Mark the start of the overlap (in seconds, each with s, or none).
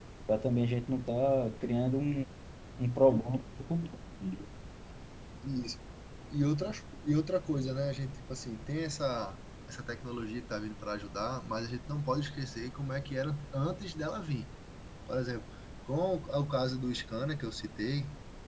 none